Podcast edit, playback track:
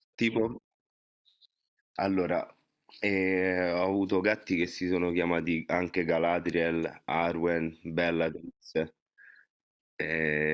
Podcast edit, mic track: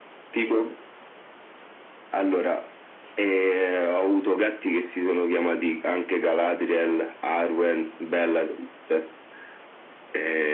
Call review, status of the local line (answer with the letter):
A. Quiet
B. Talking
A